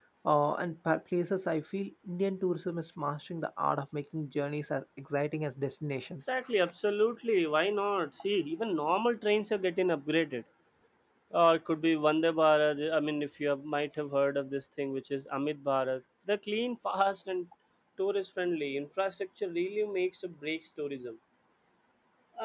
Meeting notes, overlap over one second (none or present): none